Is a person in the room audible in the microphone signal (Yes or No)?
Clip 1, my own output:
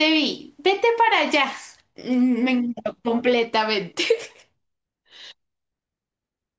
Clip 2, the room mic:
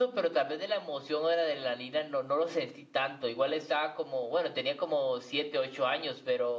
Yes